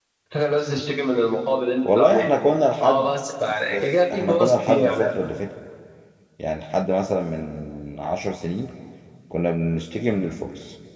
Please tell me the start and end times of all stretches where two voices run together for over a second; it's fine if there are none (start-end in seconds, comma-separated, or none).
3.7-5.2